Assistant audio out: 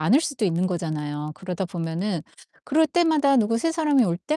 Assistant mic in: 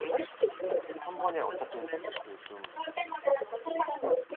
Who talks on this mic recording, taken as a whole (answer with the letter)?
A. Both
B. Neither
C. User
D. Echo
A